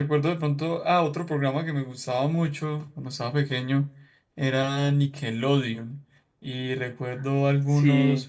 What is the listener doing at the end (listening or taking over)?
listening